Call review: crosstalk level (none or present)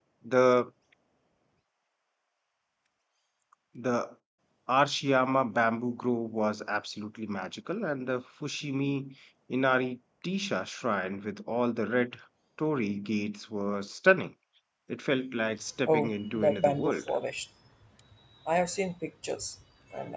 present